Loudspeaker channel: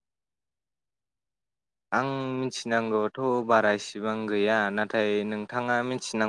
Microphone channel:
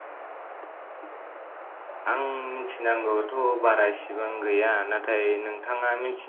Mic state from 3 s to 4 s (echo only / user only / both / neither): echo only